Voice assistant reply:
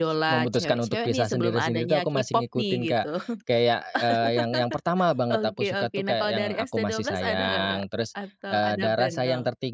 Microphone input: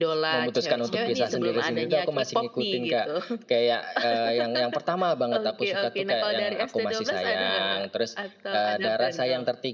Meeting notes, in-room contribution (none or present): present